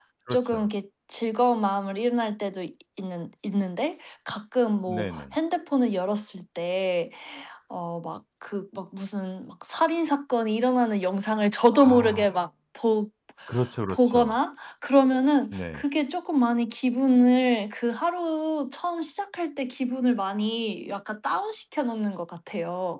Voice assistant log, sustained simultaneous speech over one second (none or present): none